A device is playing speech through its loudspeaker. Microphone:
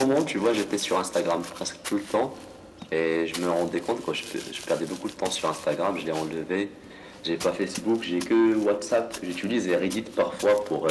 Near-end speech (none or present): none